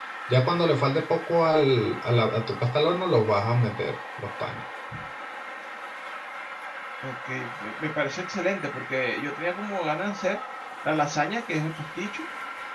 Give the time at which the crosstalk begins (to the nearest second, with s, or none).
none